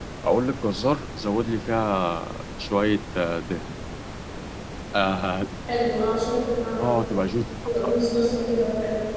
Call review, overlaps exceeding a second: none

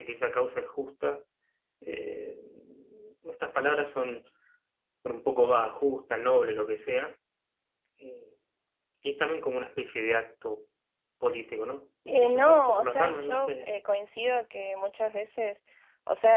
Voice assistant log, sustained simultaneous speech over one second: present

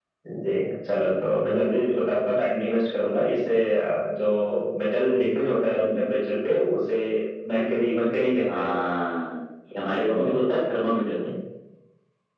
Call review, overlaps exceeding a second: none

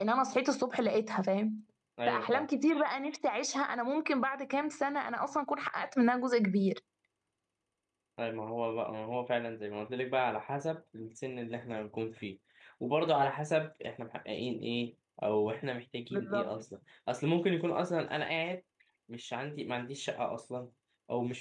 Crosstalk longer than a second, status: none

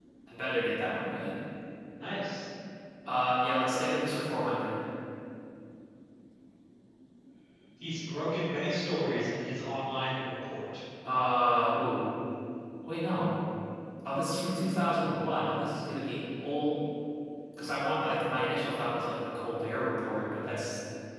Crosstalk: none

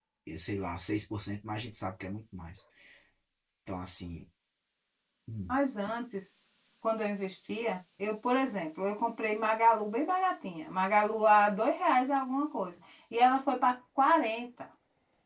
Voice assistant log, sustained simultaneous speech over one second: none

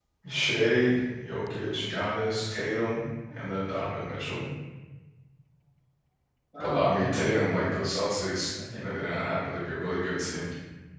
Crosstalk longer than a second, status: present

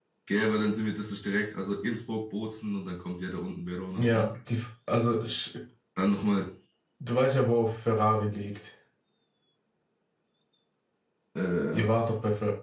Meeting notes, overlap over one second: none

